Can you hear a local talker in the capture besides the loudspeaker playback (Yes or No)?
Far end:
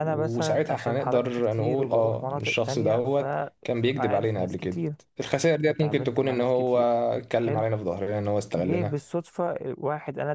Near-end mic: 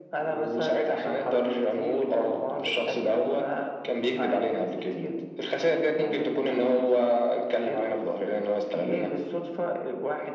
No